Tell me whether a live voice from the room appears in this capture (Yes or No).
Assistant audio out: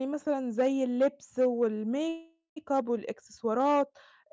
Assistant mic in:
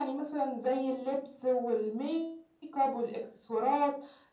No